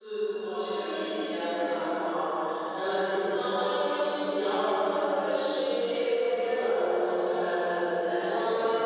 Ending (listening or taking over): listening